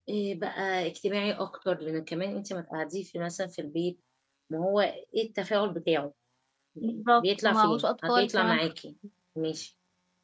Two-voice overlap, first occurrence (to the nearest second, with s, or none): 7 s